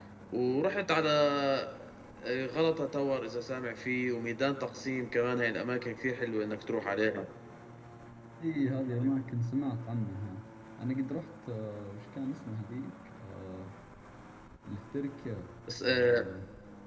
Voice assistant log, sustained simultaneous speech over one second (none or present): none